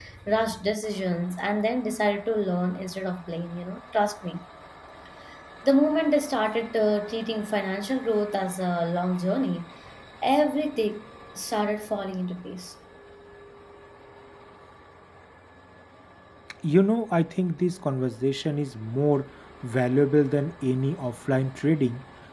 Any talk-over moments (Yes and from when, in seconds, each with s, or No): No